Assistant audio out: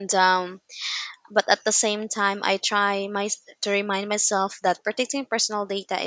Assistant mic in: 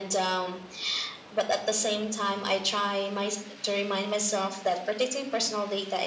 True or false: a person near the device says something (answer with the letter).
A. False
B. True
A